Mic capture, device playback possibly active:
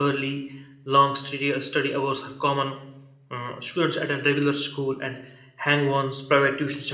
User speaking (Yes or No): Yes